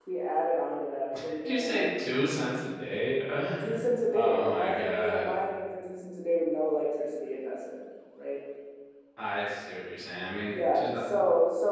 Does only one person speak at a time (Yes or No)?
No